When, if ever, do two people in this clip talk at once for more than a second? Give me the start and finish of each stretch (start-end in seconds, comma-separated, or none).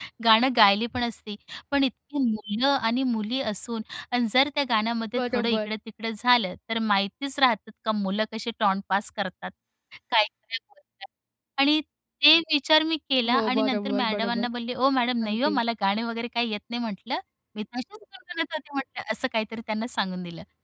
13.3-14.5